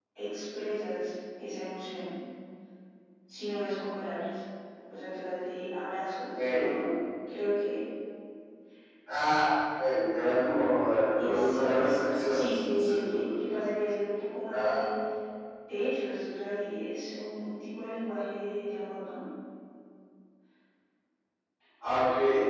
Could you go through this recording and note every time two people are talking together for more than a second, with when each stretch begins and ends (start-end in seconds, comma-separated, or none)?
11.2-13.2